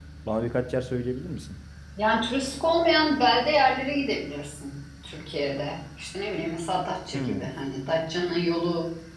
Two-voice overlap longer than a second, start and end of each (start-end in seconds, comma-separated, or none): none